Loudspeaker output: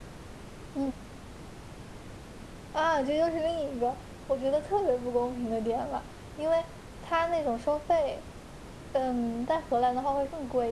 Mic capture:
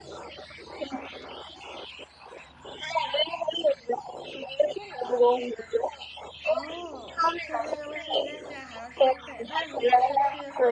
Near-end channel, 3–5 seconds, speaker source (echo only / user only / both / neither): echo only